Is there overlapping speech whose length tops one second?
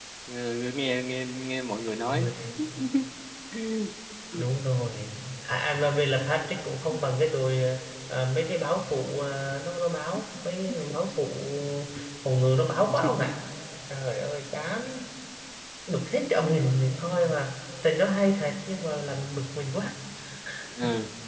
No

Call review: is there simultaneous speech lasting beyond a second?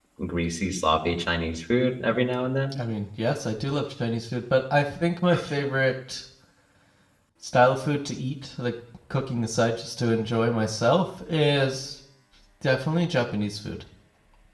No

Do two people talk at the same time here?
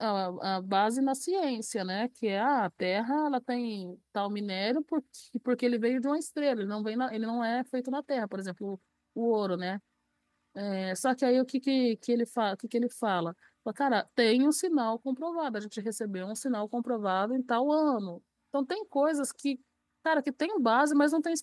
No

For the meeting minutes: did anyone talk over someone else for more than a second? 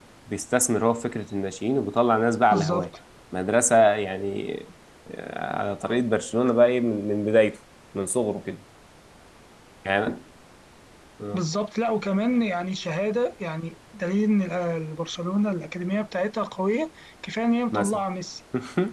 No

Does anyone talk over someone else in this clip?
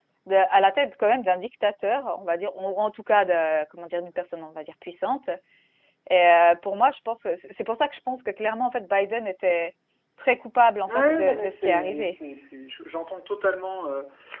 Yes, from 10.9 s

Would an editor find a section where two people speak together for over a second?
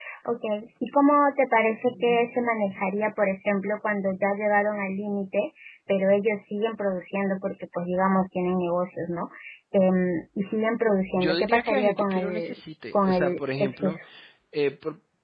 Yes, from 11.1 s

